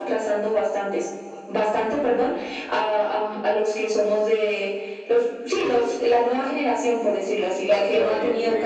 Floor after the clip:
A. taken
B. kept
A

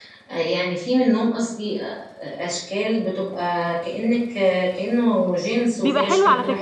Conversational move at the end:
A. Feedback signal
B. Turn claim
B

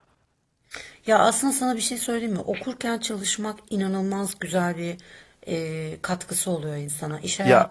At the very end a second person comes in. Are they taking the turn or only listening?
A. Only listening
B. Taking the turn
A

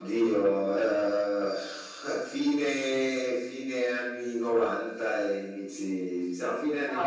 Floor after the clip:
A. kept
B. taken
B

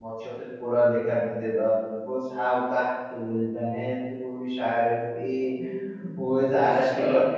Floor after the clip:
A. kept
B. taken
A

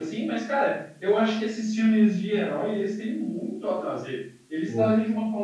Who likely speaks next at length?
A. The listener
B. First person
B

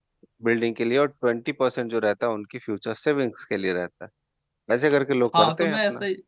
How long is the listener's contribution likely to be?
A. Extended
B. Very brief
A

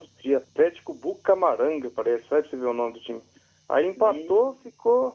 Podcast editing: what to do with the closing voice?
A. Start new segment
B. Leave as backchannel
B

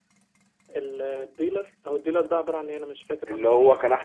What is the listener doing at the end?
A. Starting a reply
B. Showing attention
A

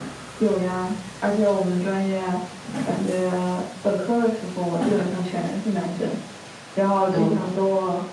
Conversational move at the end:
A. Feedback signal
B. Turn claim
A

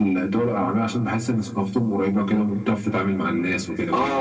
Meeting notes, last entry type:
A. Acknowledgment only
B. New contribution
B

